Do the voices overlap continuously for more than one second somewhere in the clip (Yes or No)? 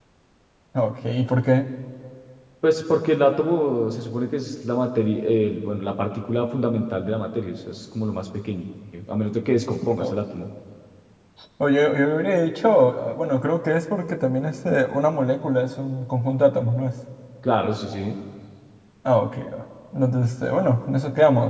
No